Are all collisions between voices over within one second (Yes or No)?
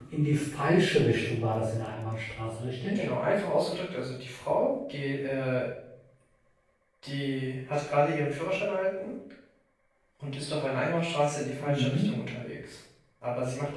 Yes